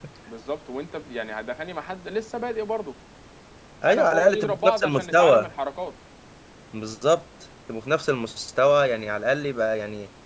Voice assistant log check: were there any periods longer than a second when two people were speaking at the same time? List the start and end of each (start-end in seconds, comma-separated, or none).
3.9-5.5